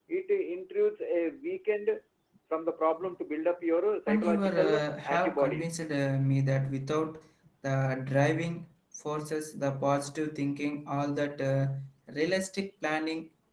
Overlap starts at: 4 s

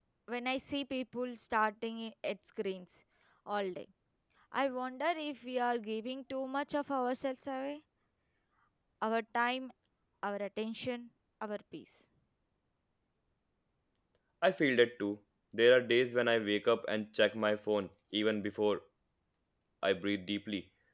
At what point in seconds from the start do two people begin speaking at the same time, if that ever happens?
none

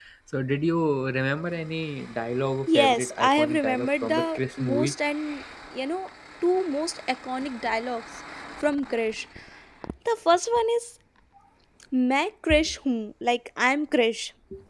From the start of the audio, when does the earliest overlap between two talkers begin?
3 s

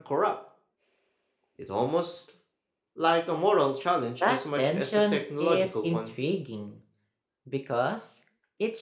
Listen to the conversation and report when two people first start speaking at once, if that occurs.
4 s

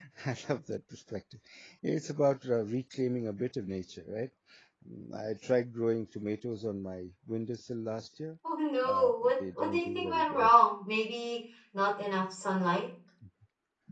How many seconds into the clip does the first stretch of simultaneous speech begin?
9 s

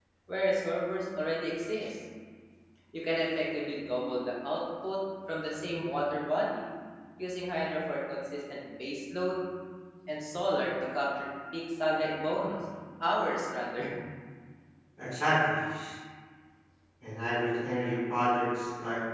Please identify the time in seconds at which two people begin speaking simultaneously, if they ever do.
none

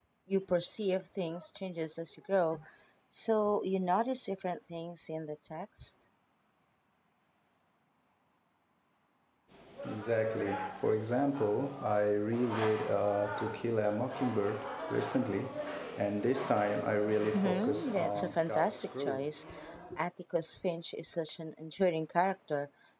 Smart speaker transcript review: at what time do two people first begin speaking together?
17 s

